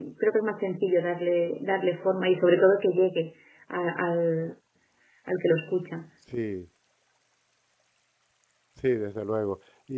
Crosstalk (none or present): none